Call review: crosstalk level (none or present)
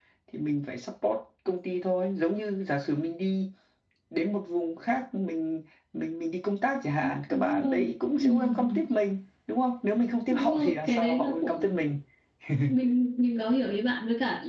present